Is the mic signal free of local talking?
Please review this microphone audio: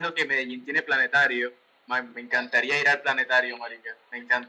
Yes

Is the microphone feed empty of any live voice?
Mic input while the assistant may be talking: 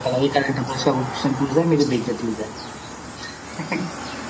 Yes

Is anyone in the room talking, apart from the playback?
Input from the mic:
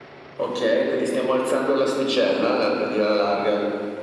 No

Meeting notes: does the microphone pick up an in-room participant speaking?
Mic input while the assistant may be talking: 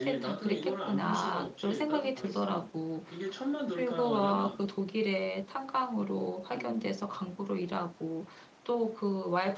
Yes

